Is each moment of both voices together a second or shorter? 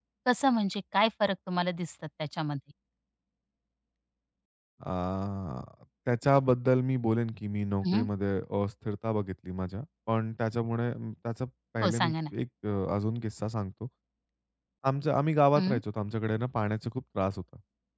Yes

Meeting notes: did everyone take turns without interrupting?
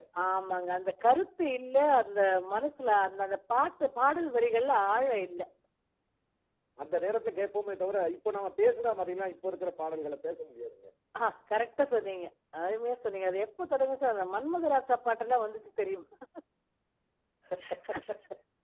Yes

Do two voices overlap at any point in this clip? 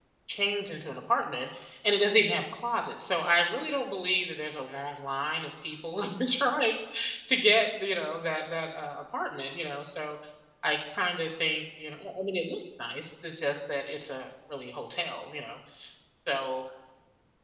No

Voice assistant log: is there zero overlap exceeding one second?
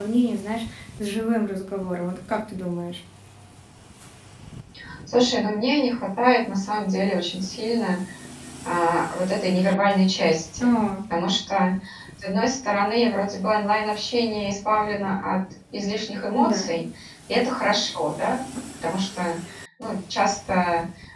Yes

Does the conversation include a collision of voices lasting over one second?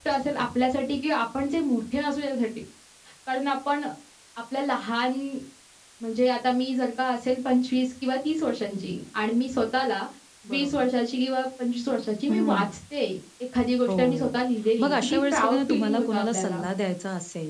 Yes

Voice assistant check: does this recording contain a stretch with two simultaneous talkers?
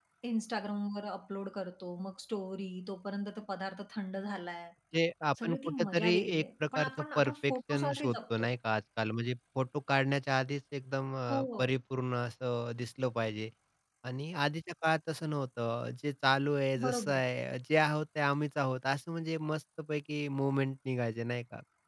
Yes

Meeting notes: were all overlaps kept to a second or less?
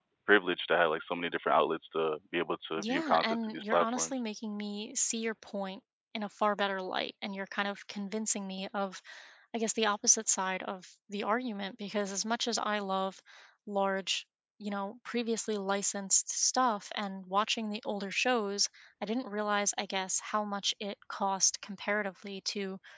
No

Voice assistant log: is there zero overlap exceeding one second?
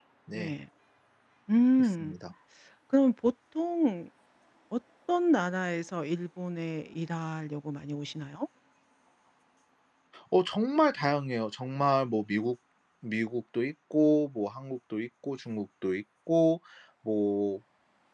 Yes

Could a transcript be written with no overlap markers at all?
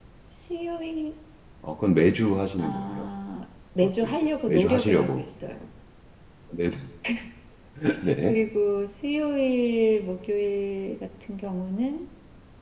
No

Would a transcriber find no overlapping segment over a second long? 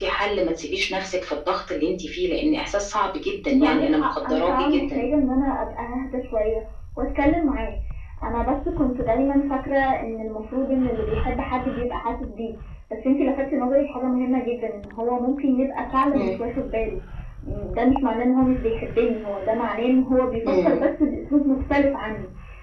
No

